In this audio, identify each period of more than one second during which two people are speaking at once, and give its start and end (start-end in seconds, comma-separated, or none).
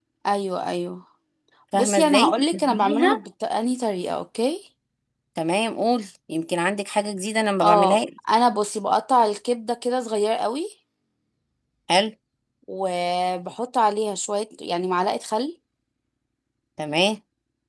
1.7-3.2